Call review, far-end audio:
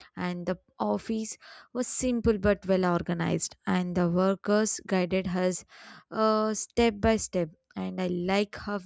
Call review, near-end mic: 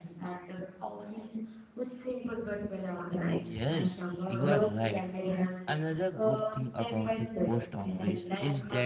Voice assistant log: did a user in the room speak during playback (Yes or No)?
Yes